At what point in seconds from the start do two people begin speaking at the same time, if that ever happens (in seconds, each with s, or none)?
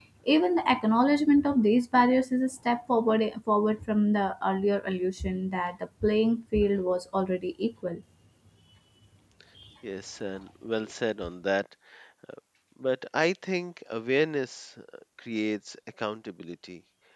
none